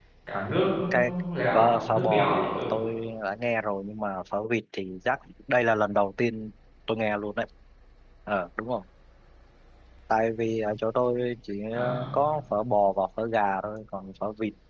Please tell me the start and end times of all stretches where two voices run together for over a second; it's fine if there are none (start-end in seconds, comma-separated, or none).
1.5-2.7